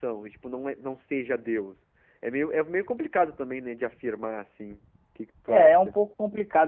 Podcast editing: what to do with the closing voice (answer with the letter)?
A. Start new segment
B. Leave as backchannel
A